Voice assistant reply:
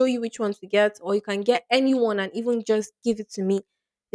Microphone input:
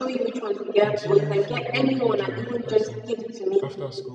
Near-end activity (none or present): present